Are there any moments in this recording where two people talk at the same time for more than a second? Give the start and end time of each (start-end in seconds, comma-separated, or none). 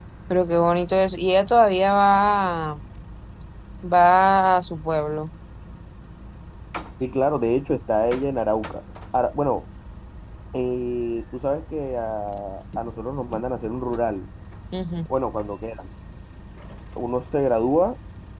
none